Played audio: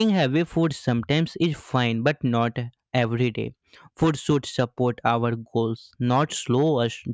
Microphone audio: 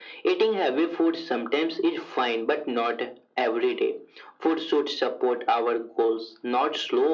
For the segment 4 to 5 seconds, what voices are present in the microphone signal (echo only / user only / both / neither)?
echo only